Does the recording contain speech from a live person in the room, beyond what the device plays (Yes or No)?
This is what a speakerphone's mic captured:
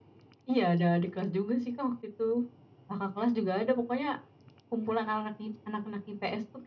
No